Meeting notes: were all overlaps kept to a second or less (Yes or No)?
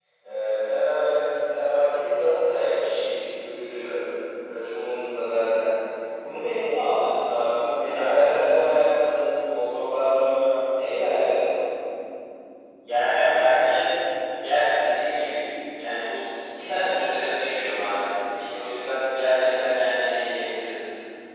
Yes